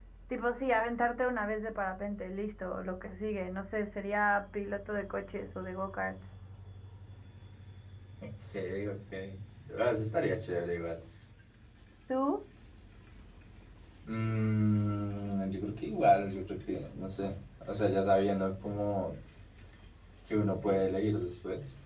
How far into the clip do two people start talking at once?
none

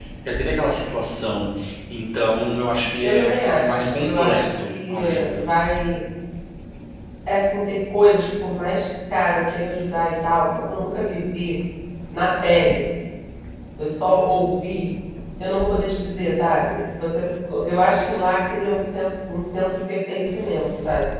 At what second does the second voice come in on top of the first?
3.0 s

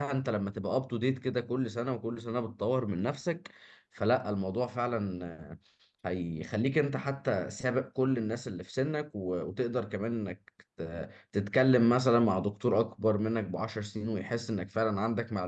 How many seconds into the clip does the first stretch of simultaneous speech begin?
none

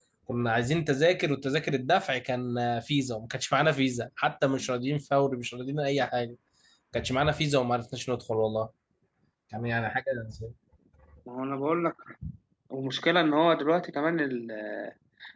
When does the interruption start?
none

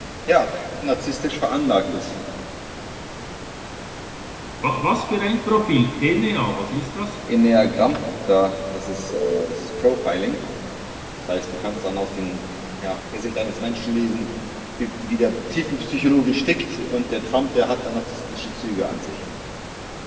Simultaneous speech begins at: none

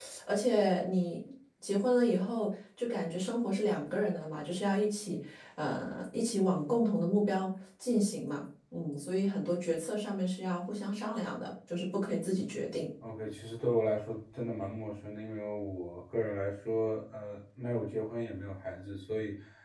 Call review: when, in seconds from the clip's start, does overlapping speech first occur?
none

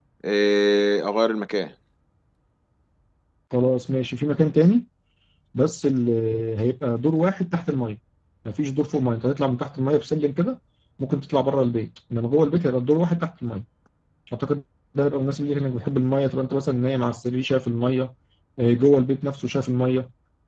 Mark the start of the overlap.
none

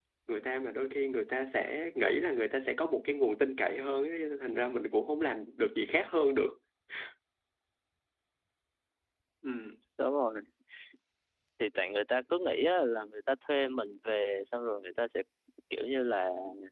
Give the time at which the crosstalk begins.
none

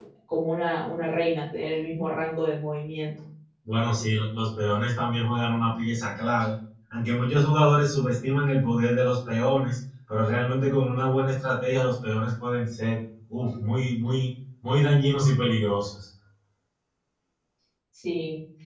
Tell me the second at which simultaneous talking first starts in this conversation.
none

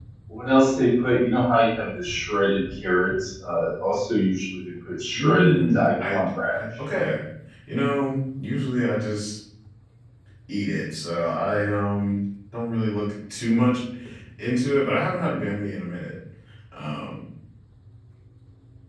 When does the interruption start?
5.1 s

